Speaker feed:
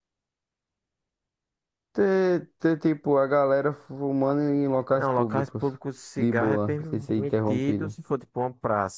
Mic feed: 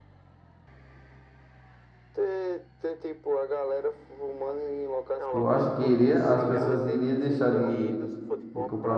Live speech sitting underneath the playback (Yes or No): No